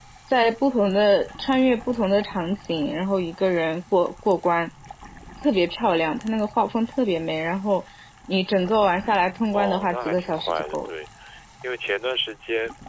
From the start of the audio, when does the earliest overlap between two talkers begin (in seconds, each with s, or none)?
9.5 s